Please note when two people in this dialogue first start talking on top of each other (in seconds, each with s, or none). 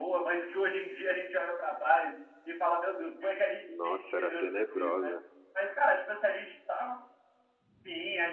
3.7 s